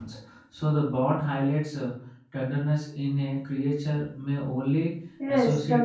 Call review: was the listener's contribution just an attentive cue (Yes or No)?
No